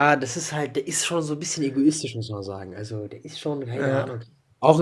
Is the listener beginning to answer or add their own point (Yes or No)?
No